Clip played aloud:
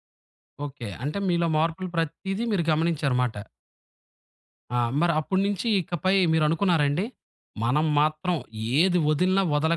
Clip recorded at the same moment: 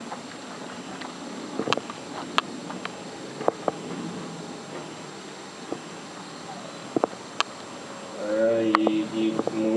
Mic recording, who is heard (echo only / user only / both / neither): user only